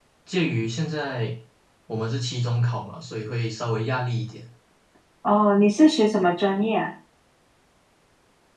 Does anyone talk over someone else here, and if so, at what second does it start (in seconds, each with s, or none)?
none